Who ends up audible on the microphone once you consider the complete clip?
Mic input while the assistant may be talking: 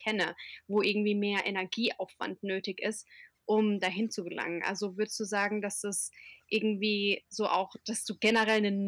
user only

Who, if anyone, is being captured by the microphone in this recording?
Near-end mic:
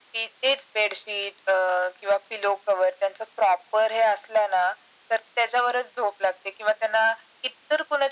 echo only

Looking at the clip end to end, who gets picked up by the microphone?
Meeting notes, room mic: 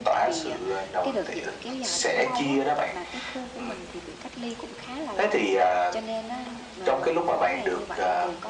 both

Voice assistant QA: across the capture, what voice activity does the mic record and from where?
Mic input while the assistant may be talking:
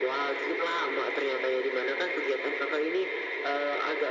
echo only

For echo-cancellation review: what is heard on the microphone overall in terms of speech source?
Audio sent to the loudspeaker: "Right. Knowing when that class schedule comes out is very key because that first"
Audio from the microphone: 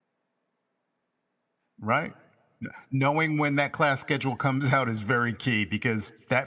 echo only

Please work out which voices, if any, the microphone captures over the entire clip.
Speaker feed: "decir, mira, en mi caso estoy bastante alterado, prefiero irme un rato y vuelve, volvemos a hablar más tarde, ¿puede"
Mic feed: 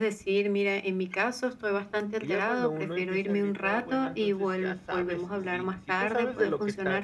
both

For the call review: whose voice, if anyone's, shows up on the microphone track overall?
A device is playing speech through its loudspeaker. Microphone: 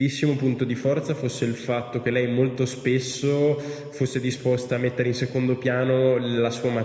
user only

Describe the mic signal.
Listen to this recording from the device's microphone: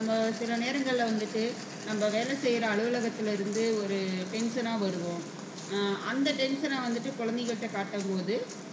echo only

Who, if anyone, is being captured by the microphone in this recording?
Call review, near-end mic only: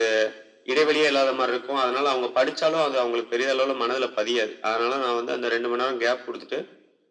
echo only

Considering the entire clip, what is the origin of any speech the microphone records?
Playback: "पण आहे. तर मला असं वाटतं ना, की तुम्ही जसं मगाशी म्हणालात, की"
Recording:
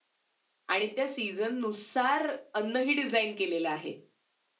user only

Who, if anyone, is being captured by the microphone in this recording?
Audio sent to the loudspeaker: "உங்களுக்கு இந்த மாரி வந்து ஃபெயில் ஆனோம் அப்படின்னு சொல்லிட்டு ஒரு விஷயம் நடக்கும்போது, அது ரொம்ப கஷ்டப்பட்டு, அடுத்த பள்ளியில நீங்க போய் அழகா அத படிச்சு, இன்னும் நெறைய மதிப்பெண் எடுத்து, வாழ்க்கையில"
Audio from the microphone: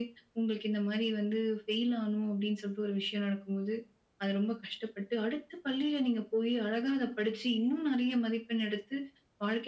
echo only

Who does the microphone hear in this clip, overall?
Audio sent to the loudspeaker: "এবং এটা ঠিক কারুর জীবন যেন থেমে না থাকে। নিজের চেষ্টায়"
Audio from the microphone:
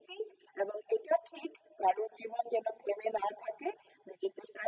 echo only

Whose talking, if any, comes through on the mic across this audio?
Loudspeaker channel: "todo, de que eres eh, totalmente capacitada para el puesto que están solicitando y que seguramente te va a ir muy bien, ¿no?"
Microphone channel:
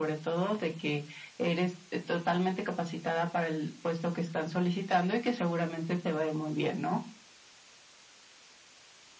echo only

